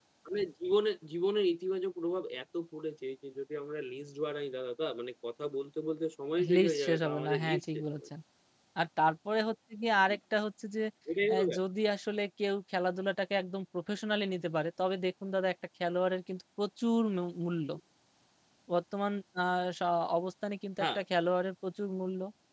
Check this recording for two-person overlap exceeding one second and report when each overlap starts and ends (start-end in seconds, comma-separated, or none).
6.5-8.1